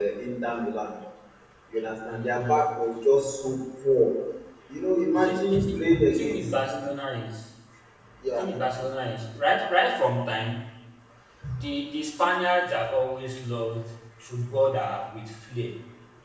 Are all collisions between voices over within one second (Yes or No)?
No